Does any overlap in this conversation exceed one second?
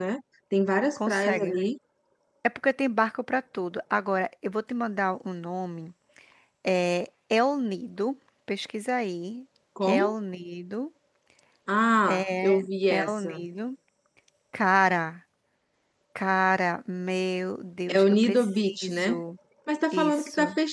Yes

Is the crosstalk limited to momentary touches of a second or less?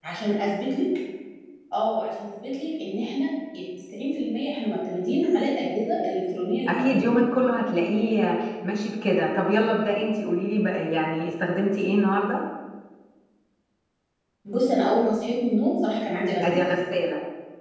Yes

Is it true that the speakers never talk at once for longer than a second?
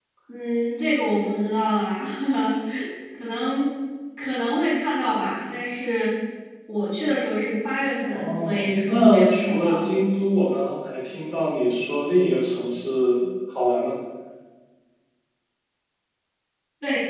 No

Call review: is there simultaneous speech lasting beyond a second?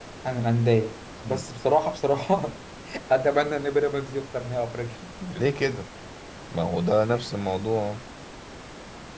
No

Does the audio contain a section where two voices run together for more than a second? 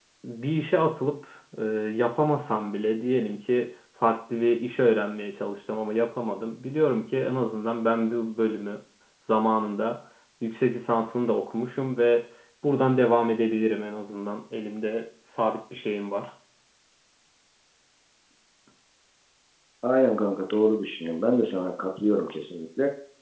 No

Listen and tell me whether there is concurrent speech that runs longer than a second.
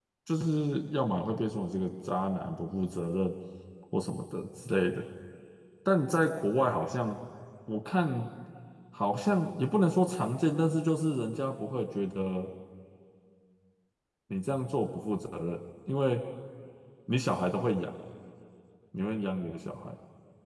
No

